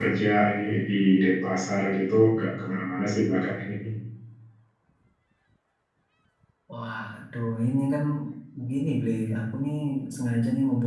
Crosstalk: none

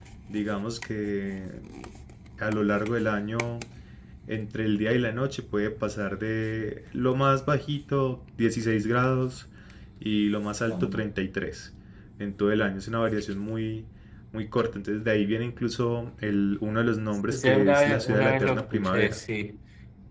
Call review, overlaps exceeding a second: present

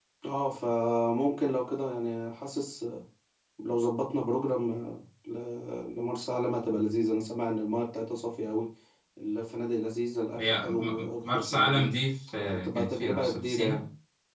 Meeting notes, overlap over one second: present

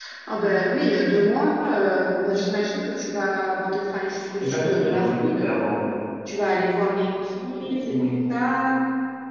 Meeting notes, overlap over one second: present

